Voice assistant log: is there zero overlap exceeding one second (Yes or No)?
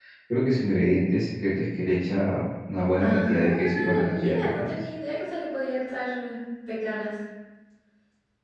No